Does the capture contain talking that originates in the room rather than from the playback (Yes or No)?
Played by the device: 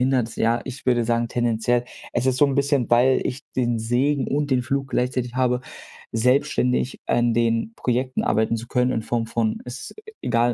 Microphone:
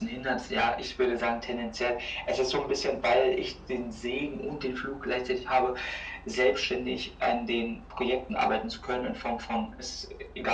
No